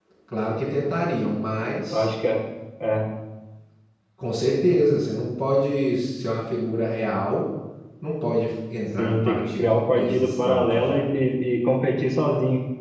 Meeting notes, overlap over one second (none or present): present